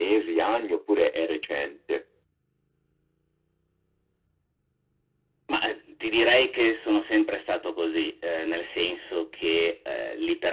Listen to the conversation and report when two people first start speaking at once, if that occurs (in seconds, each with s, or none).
none